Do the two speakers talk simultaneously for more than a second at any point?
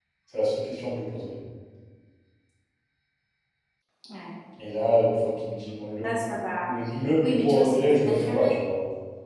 Yes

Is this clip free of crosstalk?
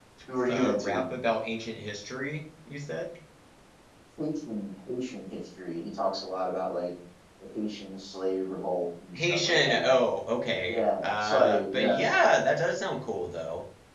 No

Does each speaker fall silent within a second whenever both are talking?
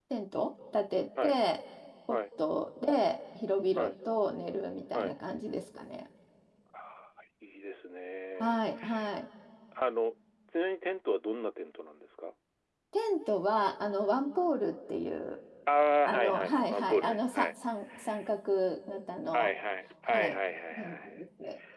No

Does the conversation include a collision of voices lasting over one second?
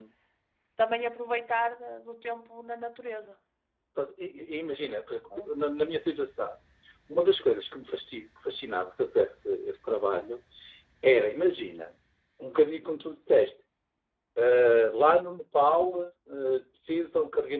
No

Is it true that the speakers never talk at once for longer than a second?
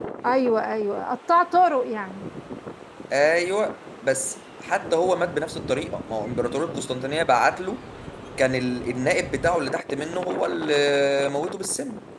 Yes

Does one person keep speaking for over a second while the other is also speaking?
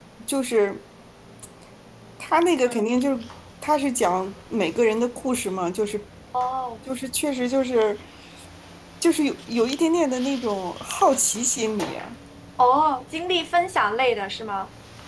No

